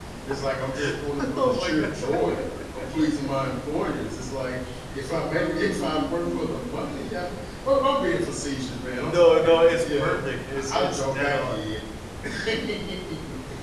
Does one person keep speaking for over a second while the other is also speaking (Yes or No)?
Yes